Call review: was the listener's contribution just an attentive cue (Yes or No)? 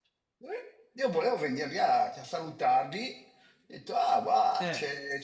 Yes